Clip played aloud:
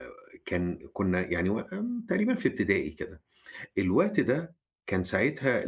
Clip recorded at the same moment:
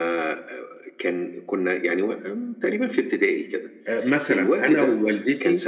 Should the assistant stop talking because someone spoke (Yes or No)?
Yes